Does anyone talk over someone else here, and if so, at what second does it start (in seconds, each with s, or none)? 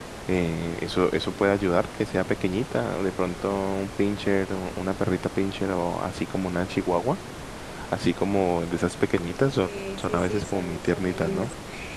9.6 s